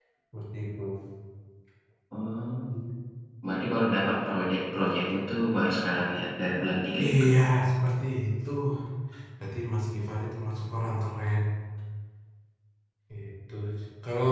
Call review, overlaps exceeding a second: none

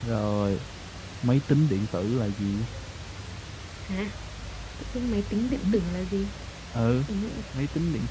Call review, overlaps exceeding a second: none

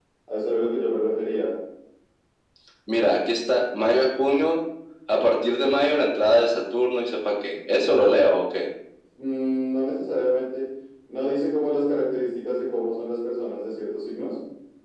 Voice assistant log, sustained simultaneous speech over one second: none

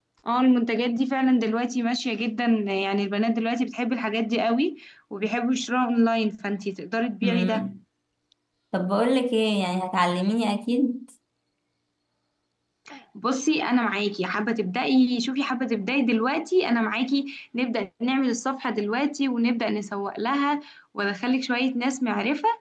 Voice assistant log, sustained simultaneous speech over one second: none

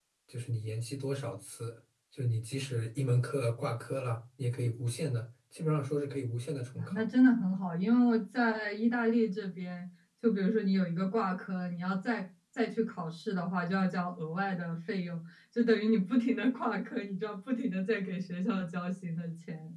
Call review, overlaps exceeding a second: none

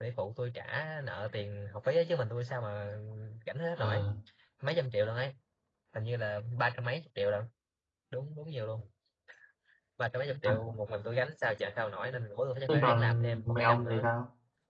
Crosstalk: present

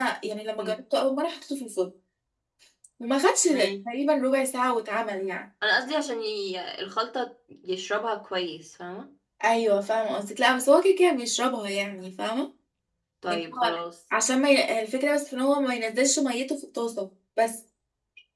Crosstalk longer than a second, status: none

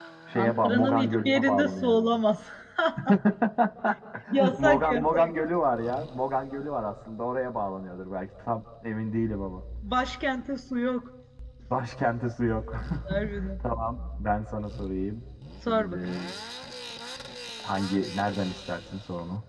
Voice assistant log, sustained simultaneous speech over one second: present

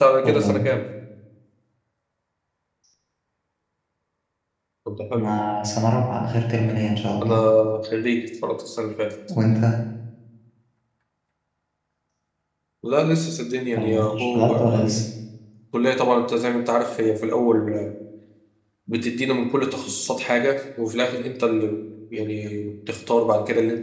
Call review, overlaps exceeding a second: present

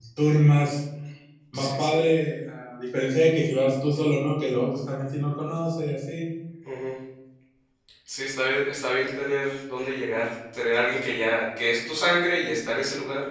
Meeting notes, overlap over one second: none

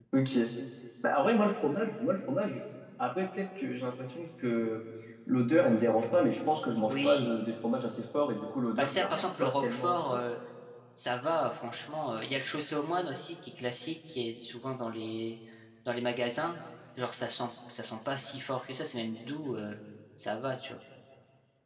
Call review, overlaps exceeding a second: present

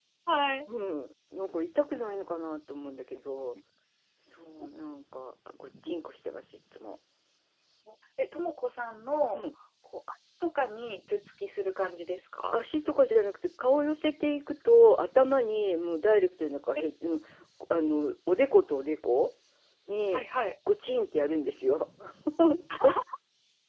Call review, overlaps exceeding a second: none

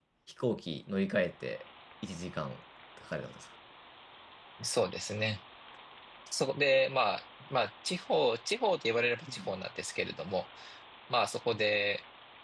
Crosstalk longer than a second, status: none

